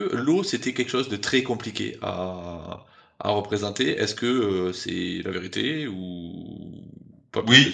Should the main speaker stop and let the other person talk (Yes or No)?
Yes